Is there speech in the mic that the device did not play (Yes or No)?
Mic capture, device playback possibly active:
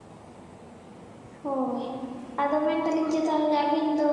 Yes